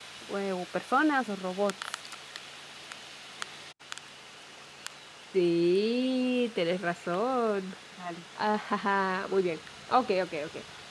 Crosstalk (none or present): none